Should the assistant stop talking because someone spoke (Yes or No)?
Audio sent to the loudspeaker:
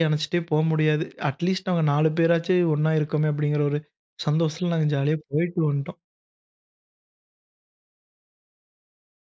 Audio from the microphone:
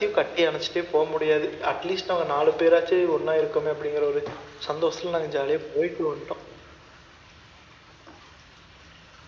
No